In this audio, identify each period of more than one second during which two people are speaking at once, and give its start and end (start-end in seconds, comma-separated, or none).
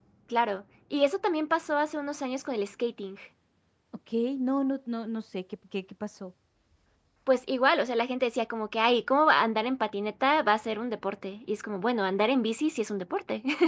none